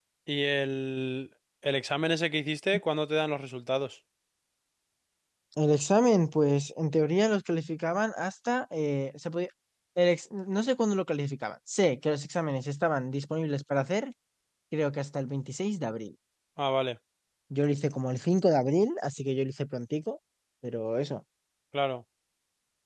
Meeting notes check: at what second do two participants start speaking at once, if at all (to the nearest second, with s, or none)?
none